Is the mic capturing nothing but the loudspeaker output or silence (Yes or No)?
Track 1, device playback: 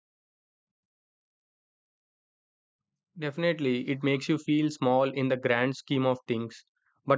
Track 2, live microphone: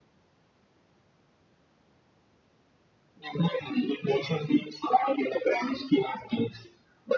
Yes